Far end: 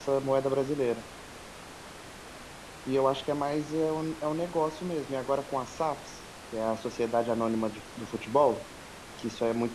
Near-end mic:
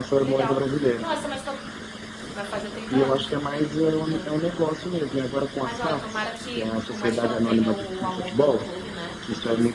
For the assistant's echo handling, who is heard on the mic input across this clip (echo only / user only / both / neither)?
both